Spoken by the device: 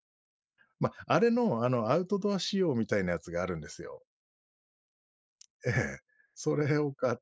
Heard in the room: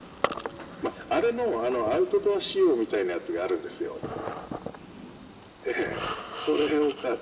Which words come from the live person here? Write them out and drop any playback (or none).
none